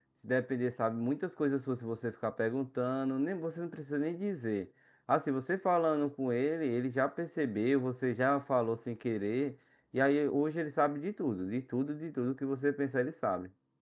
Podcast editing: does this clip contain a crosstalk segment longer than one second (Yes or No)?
No